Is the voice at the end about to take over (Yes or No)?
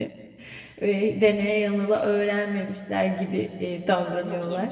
Yes